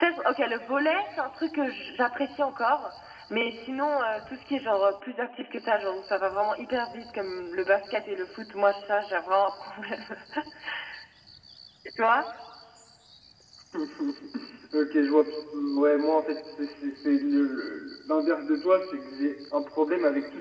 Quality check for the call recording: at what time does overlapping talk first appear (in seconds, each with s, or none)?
none